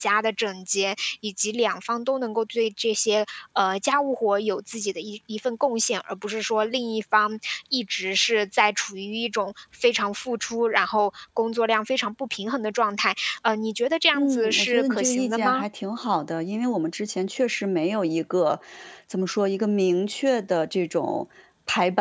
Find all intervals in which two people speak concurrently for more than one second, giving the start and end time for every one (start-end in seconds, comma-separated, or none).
14.1-15.6